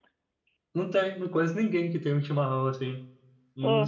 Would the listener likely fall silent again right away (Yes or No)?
Yes